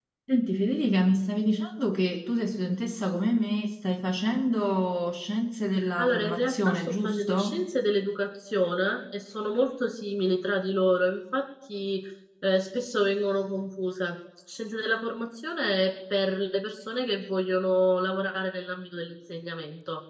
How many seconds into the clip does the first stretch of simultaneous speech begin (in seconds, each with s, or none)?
5.8 s